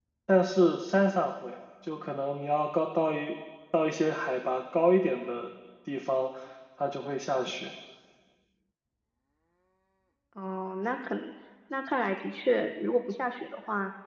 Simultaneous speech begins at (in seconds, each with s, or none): none